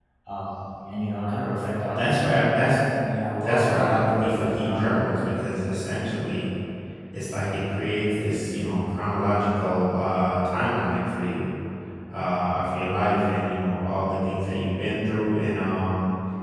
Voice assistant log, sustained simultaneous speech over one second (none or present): present